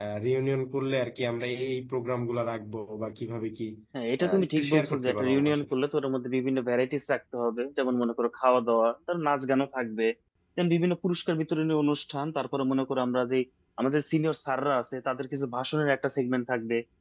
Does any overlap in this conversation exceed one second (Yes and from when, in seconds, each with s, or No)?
Yes, from 4.2 s